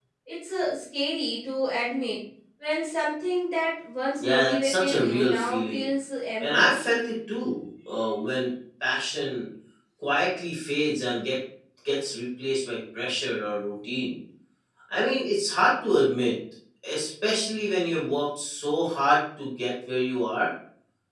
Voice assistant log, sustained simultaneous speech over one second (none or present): present